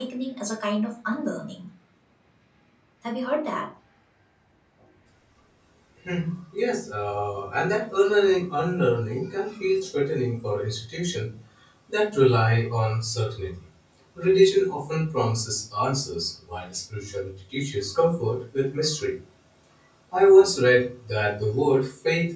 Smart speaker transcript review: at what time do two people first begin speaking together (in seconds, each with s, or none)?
none